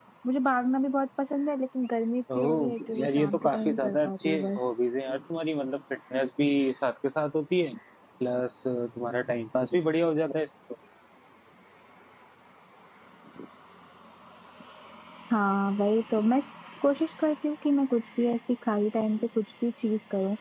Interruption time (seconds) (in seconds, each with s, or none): 2.3 s